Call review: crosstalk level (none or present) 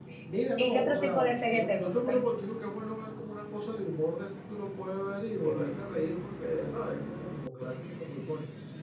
present